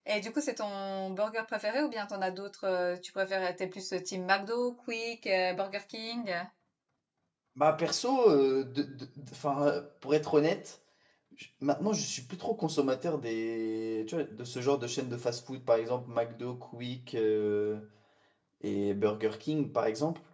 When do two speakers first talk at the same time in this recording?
none

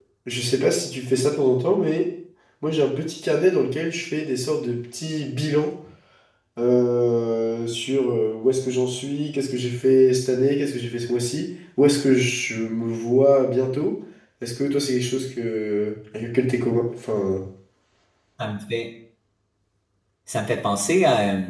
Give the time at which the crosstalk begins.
none

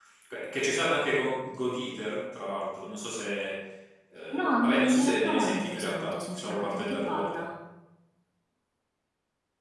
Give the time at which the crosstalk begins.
4 s

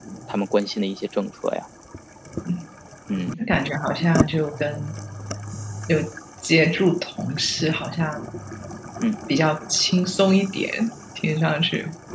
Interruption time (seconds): none

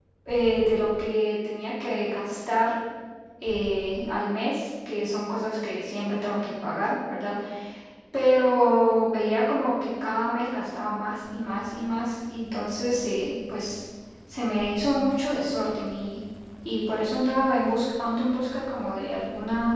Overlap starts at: none

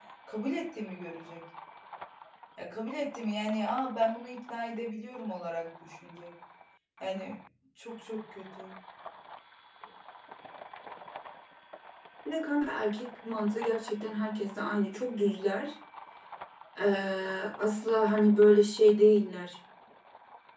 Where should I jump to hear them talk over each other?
none

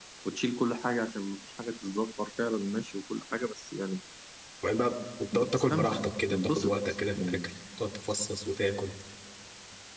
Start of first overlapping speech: 5 s

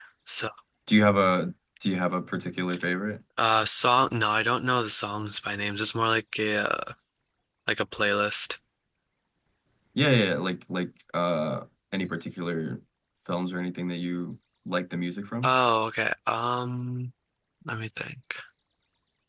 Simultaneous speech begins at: none

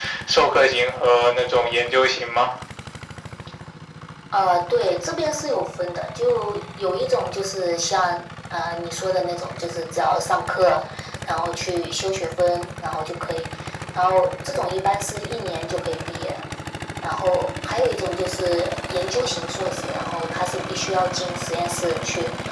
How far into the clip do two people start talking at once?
none

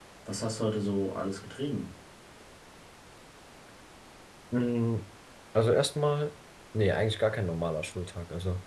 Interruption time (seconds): none

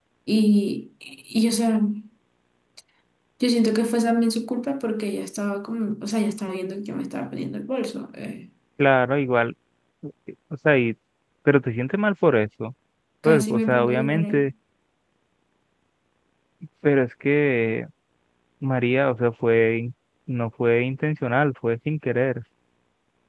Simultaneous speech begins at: 13 s

